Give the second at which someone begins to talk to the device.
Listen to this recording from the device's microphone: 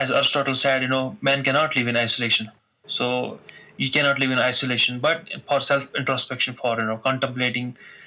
none

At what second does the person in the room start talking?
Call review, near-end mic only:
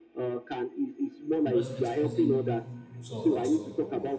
1 s

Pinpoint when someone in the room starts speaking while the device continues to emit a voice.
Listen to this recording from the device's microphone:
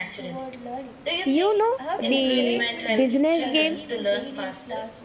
1 s

